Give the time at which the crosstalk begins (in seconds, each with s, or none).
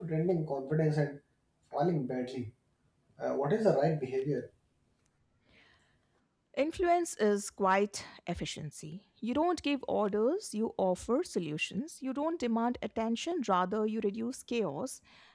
none